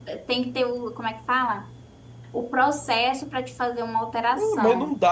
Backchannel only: No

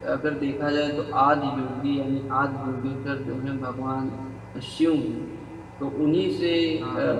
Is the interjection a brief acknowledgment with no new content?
Yes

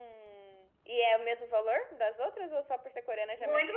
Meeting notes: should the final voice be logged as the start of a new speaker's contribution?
Yes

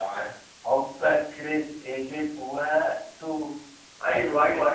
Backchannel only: No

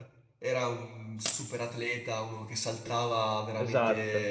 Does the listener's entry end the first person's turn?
No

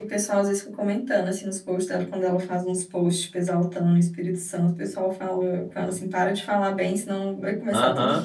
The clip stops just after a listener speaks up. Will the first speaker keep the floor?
No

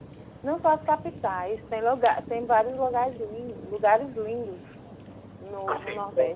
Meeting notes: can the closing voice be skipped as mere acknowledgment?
No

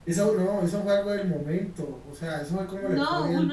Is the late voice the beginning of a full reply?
Yes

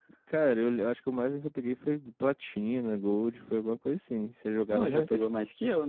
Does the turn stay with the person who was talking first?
No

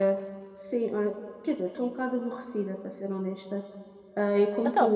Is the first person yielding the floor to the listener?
No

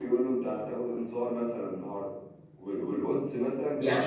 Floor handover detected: Yes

